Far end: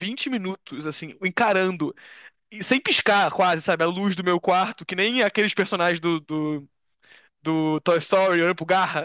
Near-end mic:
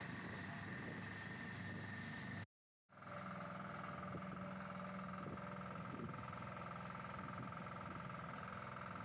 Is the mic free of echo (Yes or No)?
Yes